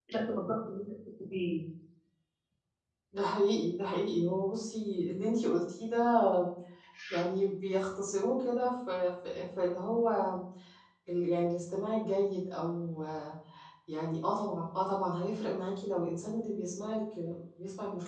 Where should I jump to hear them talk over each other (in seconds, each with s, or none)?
none